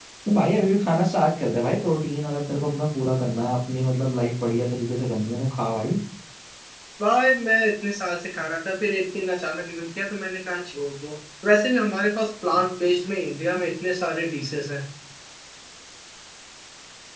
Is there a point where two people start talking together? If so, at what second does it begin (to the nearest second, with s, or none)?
none